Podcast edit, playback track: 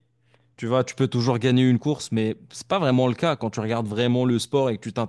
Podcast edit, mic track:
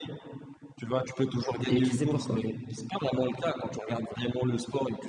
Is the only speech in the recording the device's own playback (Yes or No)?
No